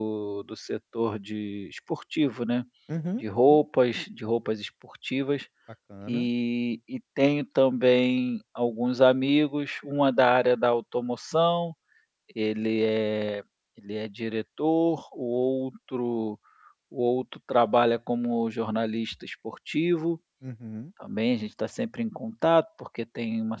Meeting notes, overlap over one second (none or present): none